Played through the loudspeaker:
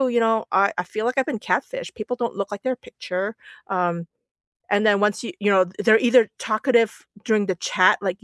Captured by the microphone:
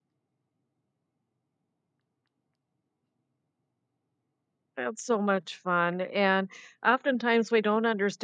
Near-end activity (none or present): present